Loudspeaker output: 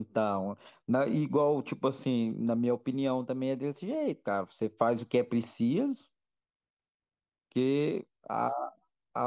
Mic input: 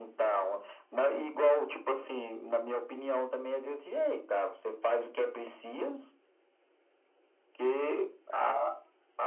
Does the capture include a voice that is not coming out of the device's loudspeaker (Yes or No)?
Yes